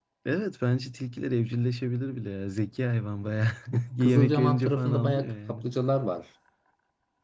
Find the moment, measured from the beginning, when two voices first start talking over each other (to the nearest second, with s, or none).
4 s